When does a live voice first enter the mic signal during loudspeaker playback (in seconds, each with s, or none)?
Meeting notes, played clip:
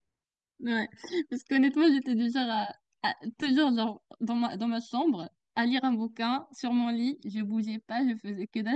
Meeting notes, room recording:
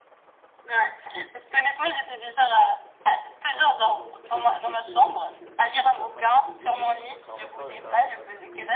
3.5 s